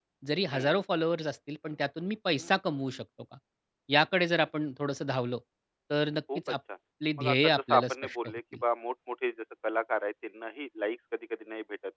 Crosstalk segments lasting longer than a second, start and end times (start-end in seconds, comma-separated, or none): 7.2-8.4